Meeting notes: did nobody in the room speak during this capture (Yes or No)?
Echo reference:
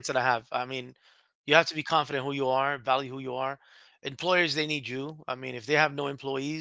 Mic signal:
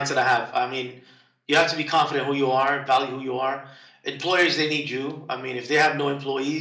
Yes